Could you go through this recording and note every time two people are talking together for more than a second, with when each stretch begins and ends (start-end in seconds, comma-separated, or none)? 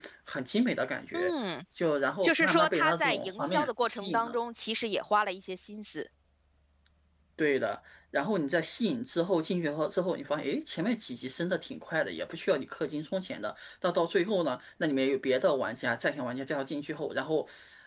2.2-4.4